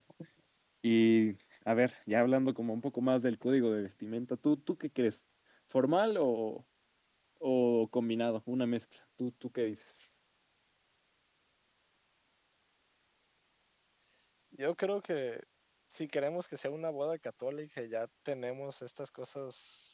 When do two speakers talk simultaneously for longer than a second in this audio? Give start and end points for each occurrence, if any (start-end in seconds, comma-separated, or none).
none